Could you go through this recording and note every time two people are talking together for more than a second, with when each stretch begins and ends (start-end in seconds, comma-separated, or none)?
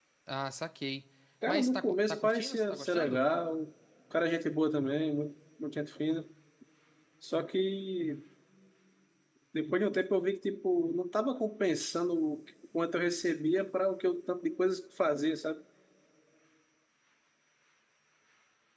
1.5-3.2